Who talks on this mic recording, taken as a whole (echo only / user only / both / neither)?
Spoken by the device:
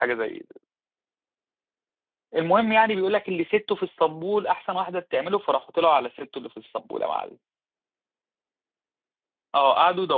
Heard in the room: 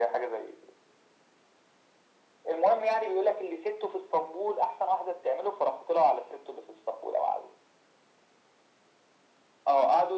echo only